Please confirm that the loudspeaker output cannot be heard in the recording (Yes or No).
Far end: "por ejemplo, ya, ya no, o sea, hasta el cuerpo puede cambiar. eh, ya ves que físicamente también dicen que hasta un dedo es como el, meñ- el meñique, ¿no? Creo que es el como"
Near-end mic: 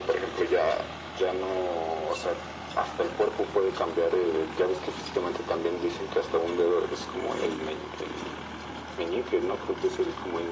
No